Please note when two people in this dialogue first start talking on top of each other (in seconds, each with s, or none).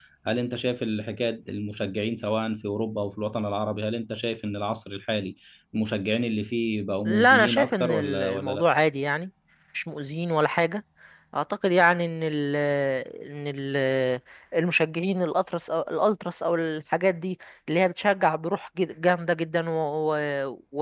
7.0 s